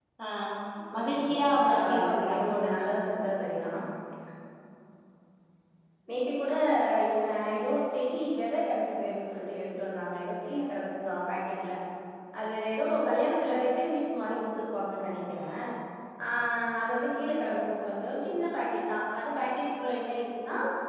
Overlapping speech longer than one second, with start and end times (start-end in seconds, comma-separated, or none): 0.9-2.5